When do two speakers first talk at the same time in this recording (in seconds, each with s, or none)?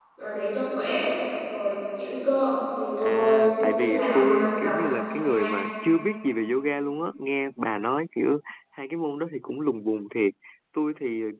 3.0 s